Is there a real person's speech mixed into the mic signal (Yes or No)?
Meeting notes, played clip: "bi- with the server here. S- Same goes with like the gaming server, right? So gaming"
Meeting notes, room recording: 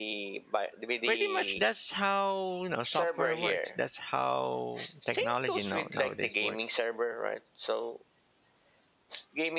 Yes